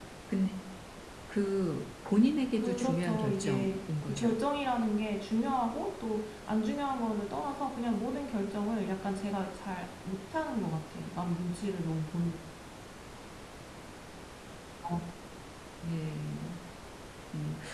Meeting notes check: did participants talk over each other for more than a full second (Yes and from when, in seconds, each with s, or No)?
Yes, from 2.5 s